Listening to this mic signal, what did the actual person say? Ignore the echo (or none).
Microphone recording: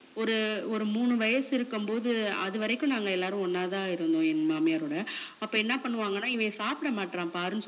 none